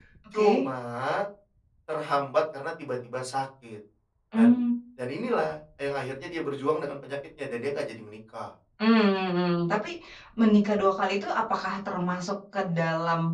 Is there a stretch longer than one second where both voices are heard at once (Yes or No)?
No